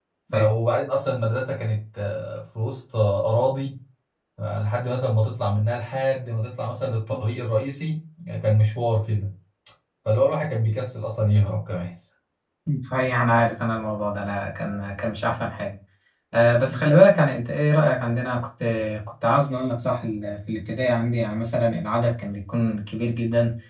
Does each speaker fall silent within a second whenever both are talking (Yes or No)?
Yes